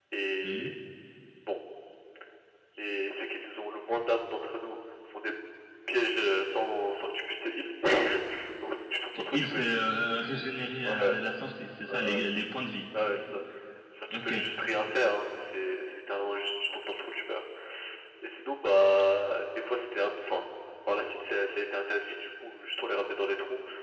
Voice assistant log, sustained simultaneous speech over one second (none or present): none